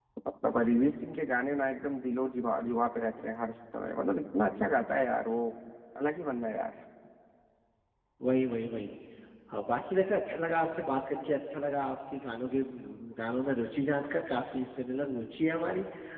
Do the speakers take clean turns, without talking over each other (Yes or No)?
Yes